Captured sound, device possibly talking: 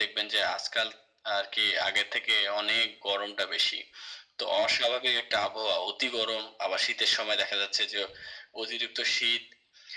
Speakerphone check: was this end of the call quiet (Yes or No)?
Yes